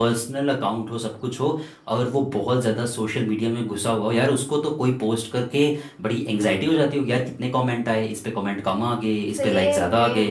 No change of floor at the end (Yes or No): No